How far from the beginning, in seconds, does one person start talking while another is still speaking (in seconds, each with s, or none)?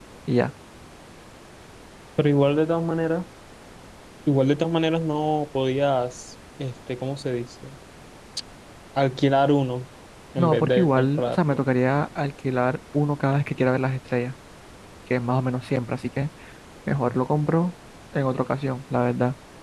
10.4 s